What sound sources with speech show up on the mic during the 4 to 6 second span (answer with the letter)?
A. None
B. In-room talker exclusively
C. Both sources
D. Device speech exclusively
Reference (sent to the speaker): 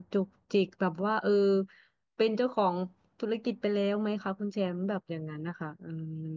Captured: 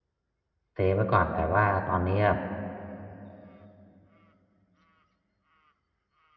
A